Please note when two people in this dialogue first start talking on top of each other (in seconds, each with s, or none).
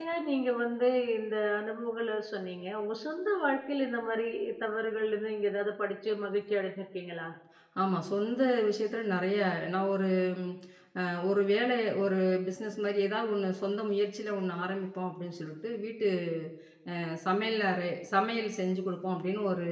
none